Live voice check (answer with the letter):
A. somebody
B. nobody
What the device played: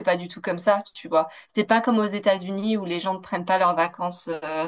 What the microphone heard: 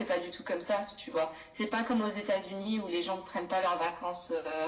B